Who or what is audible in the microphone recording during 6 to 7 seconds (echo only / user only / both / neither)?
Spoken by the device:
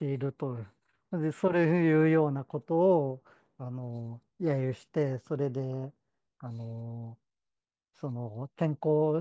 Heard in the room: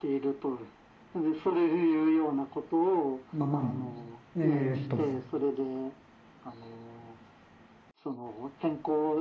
echo only